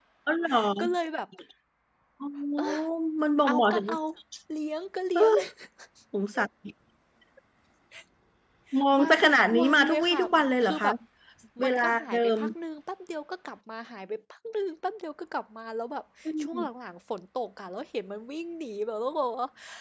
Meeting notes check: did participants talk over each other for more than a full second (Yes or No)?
Yes